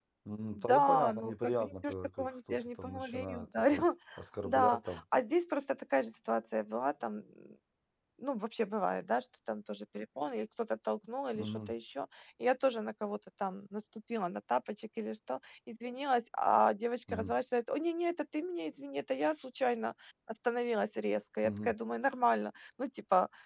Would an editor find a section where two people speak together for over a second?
Yes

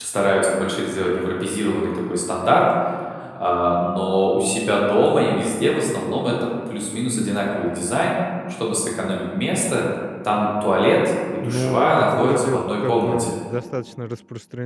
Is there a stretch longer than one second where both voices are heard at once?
Yes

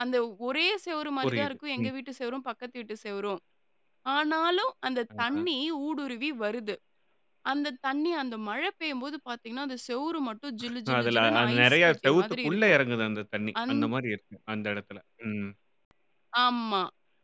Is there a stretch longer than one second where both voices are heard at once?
Yes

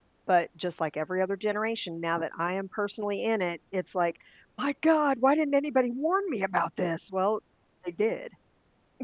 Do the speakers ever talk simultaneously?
No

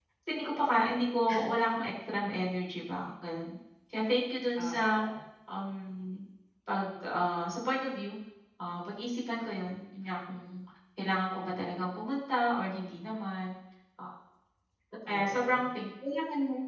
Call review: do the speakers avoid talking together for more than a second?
Yes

